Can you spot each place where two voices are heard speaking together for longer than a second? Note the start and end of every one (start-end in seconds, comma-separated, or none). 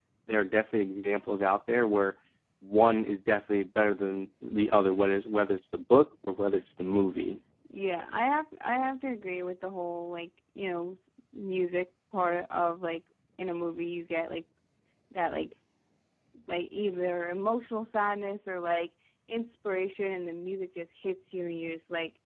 none